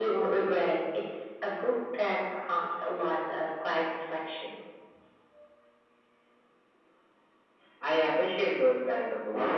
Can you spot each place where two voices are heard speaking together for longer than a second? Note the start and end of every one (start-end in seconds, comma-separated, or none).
none